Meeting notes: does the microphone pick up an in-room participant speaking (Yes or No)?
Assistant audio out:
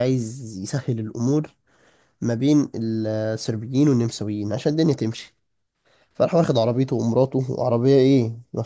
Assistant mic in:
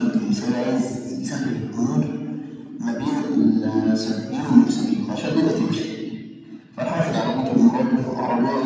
No